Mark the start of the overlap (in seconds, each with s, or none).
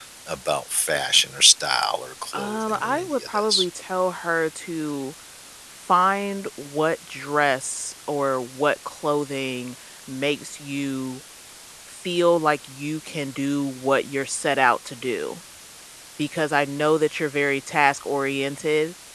2.3 s